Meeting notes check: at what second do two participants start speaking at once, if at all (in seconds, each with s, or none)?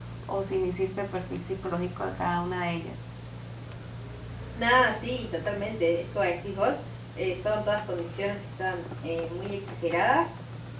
none